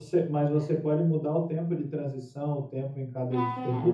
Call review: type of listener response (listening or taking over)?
taking over